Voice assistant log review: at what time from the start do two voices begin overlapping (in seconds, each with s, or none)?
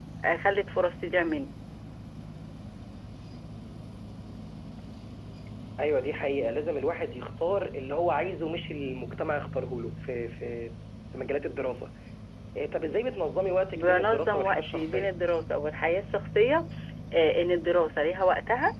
13.7 s